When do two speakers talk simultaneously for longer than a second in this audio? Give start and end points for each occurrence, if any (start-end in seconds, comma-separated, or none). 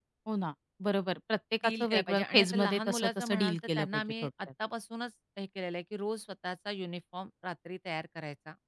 1.6-4.3